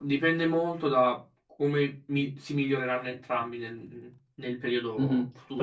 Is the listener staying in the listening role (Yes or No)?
No